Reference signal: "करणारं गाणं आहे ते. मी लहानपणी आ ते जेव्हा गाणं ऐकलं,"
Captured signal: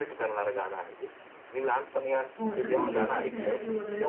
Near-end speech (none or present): present